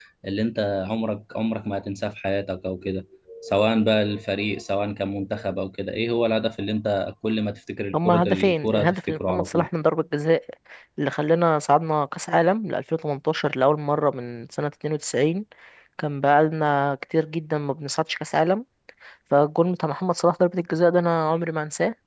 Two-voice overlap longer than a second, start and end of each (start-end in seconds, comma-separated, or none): 7.9-9.7